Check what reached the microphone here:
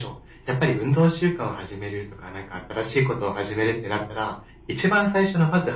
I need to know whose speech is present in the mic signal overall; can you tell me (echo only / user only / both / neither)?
echo only